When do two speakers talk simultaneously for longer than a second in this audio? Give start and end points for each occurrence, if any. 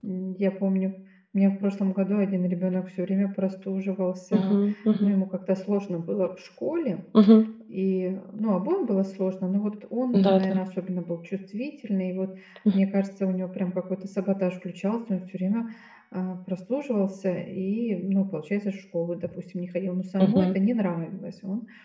none

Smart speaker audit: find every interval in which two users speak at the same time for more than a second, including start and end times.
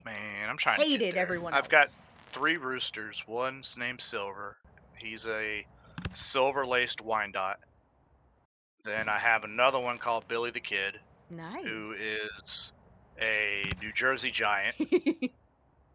0.7-1.9

